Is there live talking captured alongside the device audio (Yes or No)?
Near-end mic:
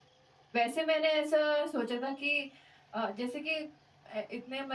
Yes